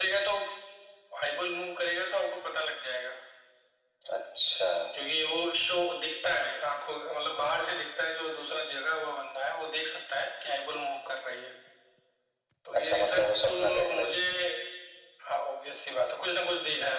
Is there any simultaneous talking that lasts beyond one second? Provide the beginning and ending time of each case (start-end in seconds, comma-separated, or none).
12.8-14.1